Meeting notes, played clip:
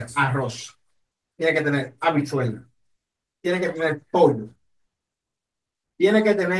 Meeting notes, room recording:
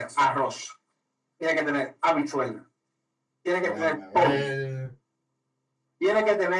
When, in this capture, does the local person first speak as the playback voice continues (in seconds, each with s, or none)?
3.6 s